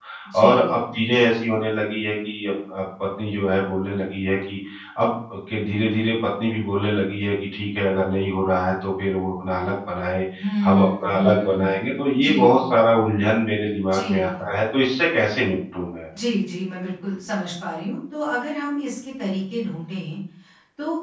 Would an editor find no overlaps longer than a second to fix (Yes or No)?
No